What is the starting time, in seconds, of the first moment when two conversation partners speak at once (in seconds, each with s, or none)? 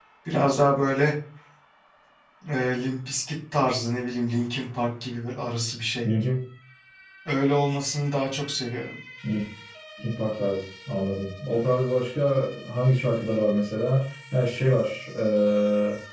none